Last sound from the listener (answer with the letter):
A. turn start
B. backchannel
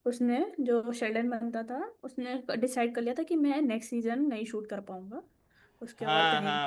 A